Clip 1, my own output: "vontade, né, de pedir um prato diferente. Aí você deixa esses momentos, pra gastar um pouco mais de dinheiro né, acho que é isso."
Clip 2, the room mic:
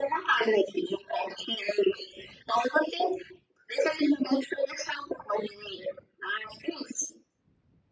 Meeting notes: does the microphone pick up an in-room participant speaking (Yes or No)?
No